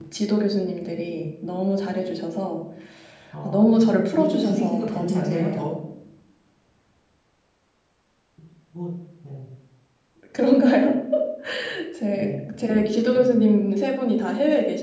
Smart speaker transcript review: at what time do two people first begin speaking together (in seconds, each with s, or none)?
3.4 s